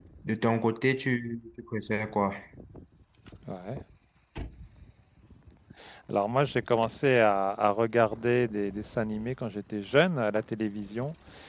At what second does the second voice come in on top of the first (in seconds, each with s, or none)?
none